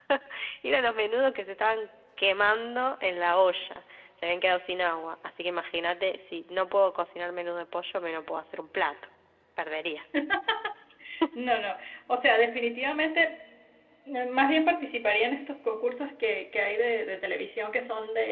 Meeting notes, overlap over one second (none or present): none